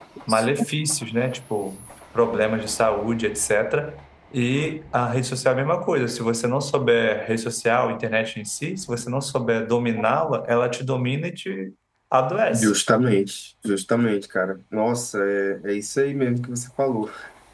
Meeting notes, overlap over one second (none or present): none